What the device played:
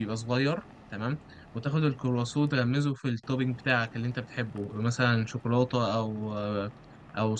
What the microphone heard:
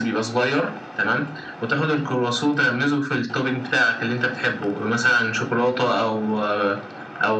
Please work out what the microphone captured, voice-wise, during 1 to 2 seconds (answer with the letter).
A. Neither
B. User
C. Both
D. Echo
D